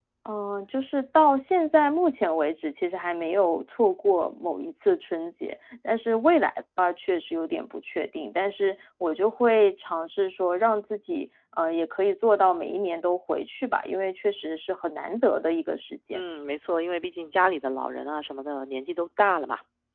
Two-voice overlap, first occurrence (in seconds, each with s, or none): none